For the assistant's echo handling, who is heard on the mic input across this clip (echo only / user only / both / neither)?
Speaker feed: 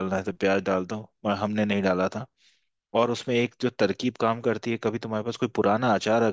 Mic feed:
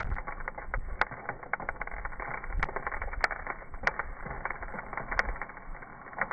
neither